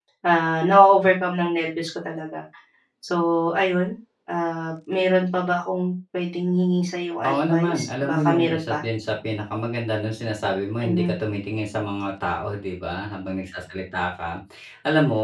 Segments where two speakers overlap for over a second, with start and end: 7.3-8.8

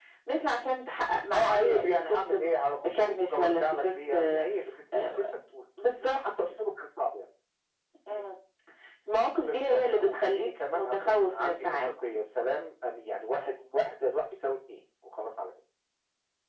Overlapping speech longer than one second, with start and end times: 1.3-4.5, 9.5-11.8

